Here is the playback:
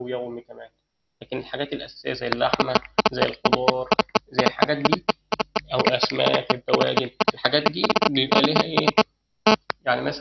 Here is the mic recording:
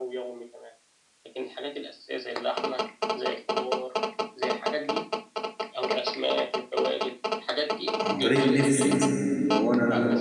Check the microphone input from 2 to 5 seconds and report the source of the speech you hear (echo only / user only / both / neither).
echo only